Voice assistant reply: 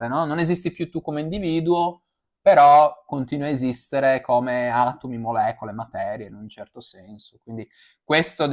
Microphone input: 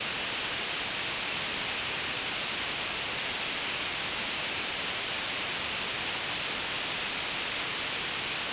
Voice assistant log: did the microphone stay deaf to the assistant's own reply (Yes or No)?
Yes